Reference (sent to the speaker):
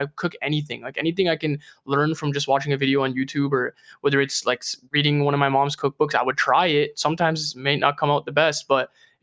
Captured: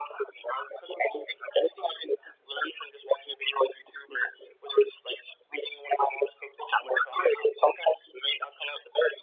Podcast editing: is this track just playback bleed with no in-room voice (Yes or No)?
Yes